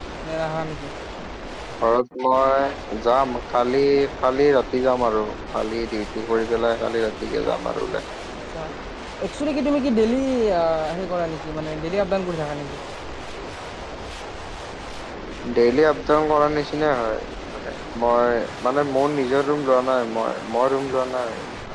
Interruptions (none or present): none